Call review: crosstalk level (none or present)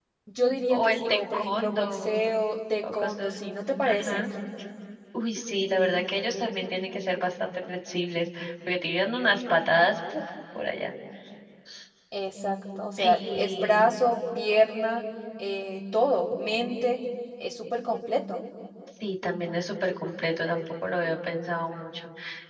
present